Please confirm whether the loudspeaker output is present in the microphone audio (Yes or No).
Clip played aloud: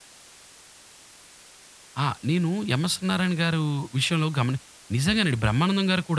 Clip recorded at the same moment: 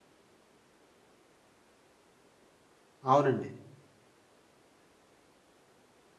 No